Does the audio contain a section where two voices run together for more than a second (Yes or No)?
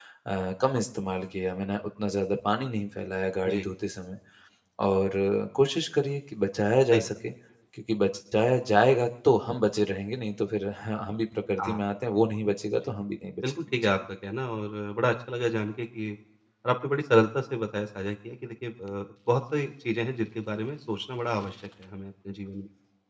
No